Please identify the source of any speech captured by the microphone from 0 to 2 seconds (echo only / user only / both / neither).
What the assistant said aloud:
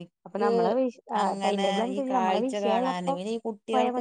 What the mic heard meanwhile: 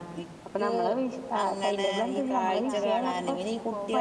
both